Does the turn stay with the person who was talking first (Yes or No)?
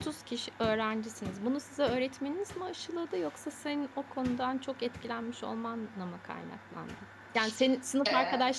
Yes